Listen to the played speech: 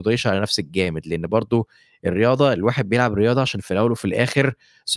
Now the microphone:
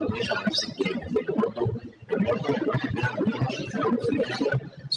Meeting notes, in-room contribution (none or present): none